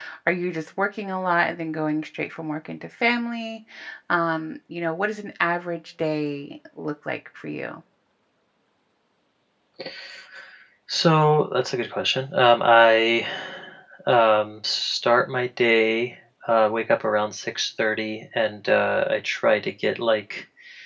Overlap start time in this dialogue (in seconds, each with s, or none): none